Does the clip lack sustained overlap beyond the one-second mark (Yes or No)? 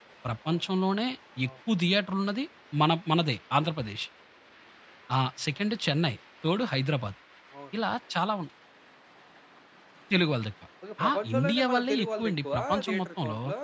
No